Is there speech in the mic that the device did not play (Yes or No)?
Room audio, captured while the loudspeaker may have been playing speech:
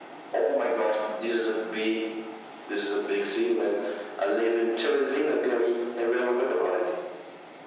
No